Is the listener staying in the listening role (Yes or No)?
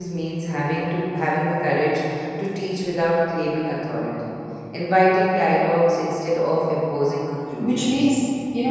No